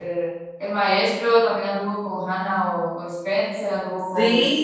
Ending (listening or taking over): taking over